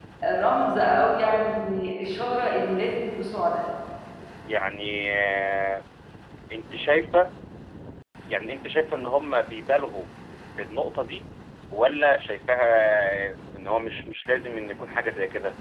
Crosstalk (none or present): none